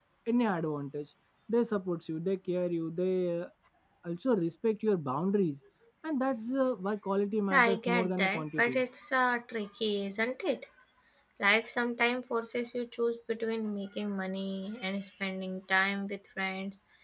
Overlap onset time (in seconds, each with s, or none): 7.5 s